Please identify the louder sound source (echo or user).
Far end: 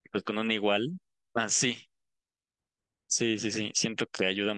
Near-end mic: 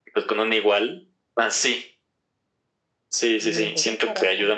echo